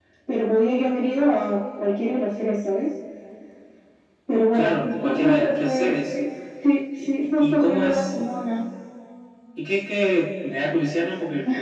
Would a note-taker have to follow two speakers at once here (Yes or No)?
Yes